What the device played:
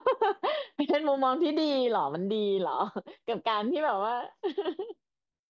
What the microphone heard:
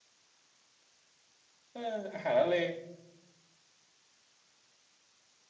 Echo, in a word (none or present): none